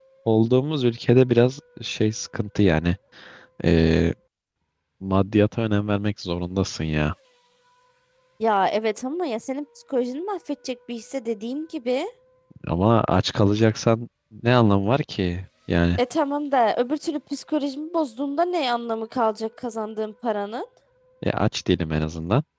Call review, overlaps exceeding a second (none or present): none